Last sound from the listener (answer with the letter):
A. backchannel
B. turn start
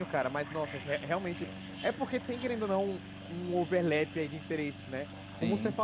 A